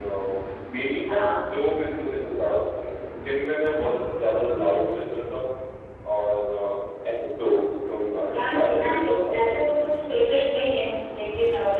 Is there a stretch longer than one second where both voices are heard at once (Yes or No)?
Yes